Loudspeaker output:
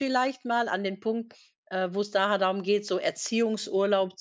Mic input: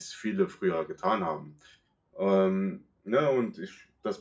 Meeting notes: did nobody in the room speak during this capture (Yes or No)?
No